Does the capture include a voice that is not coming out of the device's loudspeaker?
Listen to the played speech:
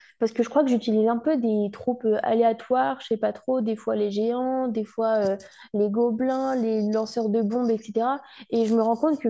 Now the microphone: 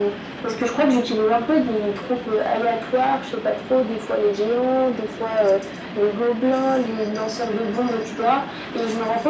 No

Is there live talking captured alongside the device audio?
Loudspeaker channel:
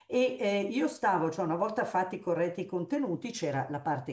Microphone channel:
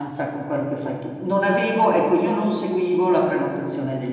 Yes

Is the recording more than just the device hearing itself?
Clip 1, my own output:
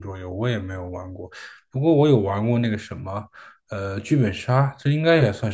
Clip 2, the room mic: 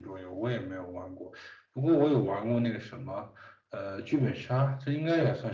No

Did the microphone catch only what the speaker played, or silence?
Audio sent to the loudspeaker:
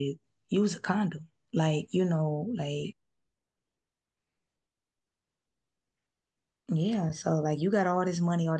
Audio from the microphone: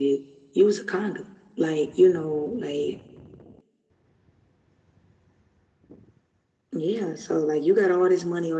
Yes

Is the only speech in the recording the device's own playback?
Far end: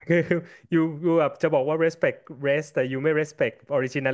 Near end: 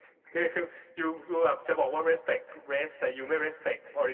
Yes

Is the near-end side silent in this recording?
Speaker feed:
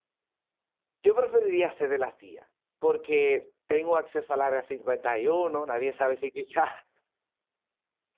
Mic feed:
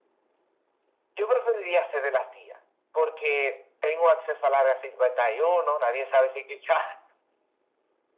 Yes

